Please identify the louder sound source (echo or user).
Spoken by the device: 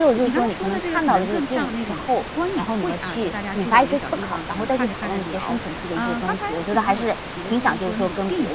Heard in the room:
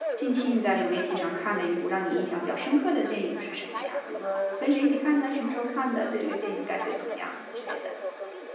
user